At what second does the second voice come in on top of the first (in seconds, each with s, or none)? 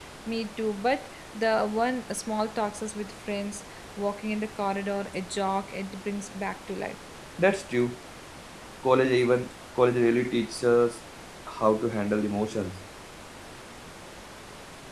none